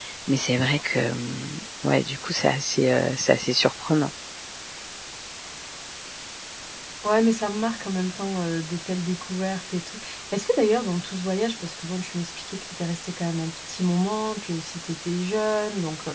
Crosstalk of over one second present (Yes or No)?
No